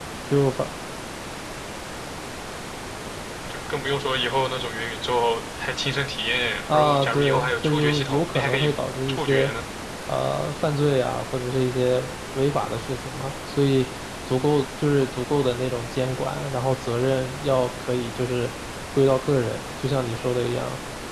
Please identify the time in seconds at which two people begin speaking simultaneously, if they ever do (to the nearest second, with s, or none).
7 s